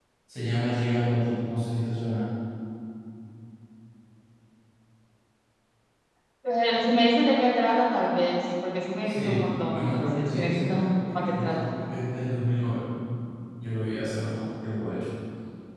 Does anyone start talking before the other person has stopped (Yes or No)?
Yes